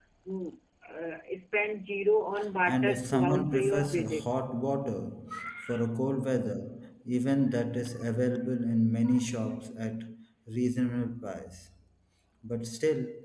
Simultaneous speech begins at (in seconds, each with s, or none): 2.7 s